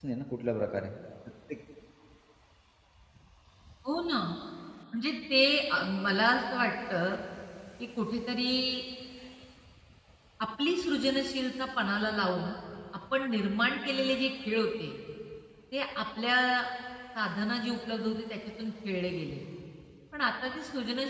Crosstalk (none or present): none